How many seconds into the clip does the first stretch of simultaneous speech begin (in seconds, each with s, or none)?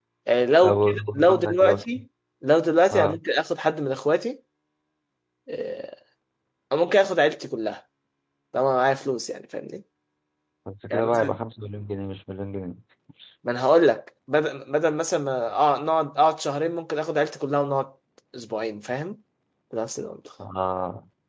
0.6 s